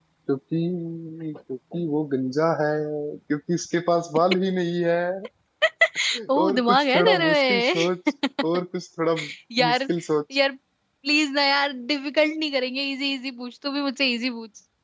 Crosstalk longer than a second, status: present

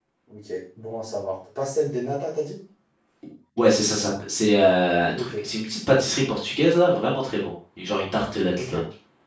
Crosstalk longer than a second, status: none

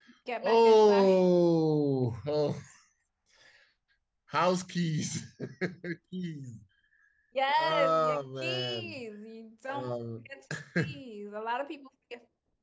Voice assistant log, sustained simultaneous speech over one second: present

